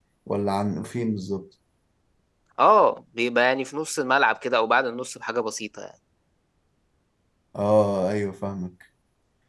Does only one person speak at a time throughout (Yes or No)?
Yes